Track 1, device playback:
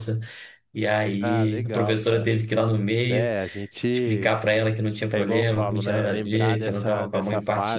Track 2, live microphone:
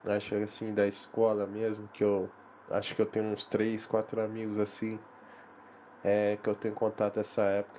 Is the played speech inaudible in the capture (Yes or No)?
Yes